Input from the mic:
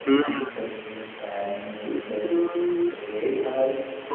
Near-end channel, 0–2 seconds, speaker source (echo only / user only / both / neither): both